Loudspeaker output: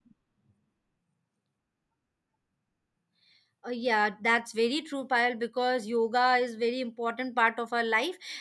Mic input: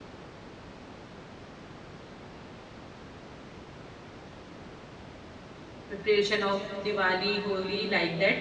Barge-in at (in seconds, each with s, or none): 5.9 s